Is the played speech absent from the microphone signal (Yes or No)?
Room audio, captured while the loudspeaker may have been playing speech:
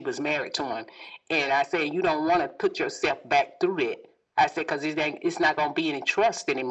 No